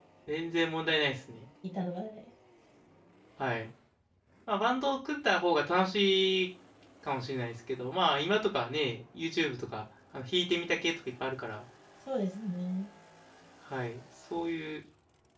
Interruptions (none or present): none